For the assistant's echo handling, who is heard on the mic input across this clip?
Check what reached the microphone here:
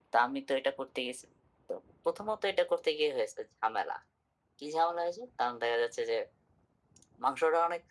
echo only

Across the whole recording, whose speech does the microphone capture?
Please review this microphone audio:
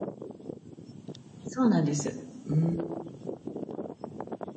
user only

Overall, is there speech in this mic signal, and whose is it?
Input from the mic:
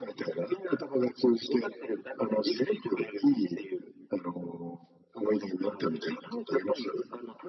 echo only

